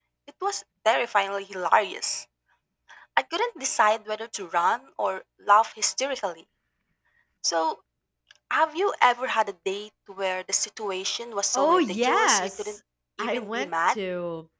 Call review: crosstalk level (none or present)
present